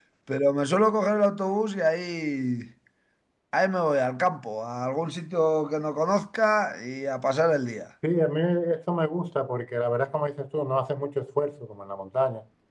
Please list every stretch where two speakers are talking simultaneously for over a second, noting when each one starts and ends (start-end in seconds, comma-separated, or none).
none